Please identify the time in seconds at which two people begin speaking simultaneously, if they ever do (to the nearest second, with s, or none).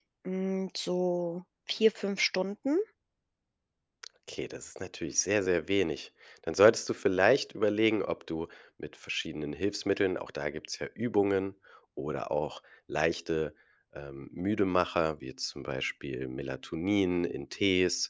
none